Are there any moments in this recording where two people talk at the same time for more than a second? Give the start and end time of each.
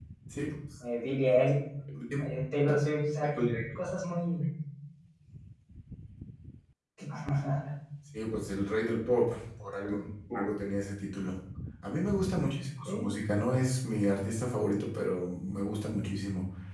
none

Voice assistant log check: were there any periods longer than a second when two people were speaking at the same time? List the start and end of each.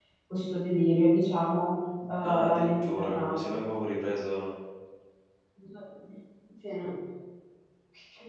2.2-3.6

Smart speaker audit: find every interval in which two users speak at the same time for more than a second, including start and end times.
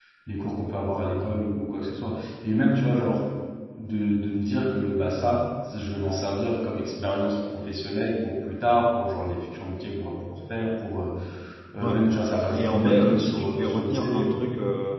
12.6-14.4

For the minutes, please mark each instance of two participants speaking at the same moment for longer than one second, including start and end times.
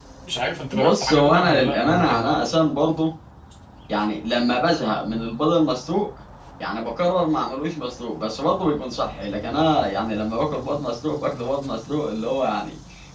0.7-2.4

